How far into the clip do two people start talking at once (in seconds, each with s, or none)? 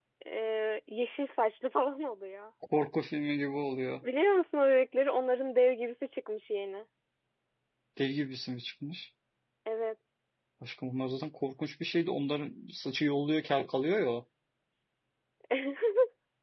none